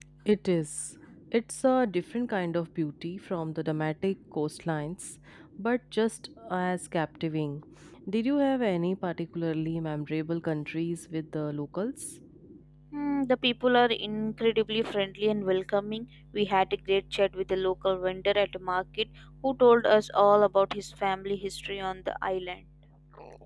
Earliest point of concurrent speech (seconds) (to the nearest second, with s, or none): none